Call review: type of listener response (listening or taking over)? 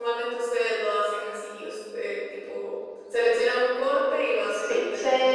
taking over